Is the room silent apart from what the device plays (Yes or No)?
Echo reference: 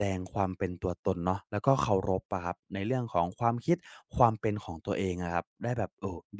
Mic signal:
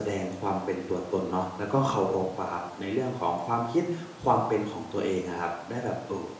Yes